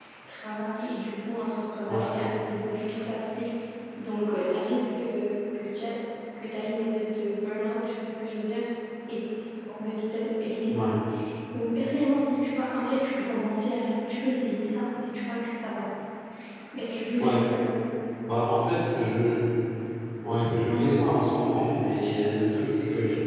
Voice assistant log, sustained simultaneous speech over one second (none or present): none